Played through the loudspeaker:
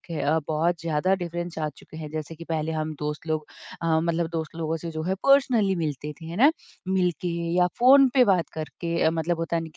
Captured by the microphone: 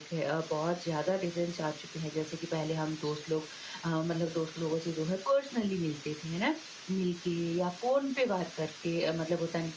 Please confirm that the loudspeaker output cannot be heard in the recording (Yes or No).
No